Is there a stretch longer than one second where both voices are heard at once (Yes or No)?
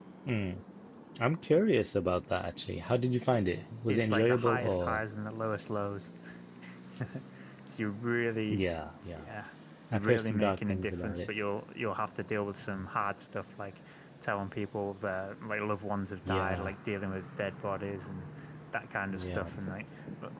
Yes